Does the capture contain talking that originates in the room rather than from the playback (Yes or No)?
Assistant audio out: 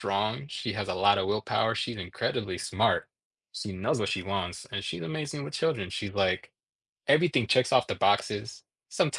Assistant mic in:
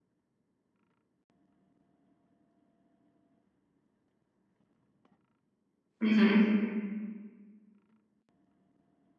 Yes